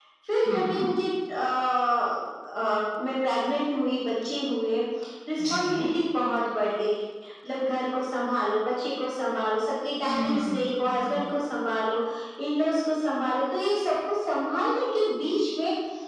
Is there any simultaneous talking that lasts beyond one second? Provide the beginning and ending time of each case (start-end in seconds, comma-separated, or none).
10.0-11.3